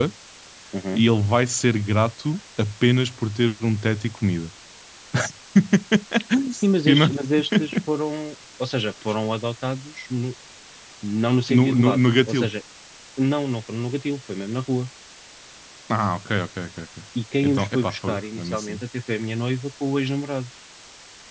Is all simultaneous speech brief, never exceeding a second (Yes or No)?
No